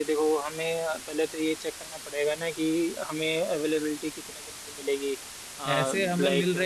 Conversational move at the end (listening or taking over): taking over